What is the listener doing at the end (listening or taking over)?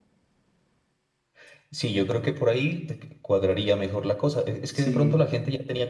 listening